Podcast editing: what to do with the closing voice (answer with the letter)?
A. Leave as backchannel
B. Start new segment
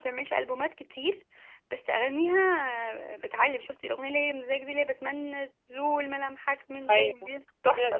B